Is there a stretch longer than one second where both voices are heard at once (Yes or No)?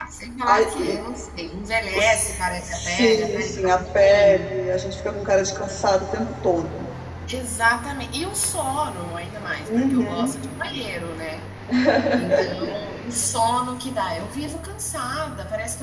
Yes